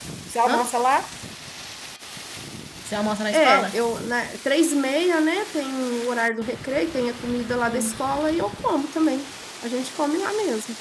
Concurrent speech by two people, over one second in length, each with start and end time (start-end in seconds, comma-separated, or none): none